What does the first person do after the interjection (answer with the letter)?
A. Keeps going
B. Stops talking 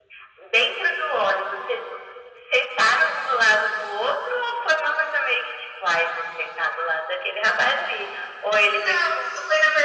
B